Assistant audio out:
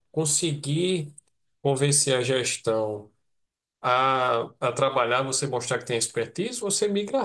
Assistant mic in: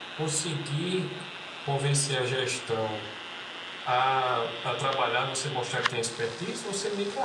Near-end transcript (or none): none